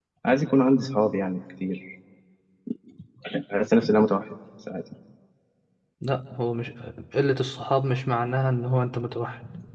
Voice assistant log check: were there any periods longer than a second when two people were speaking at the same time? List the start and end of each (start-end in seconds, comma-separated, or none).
none